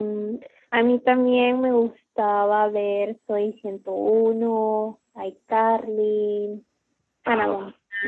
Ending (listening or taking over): taking over